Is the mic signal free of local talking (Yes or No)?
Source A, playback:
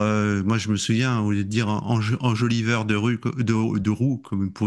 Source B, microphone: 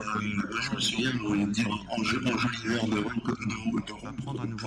No